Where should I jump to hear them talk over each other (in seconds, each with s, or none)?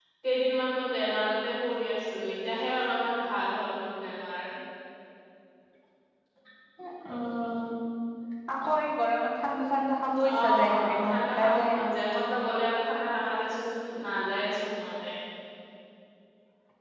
10.4 s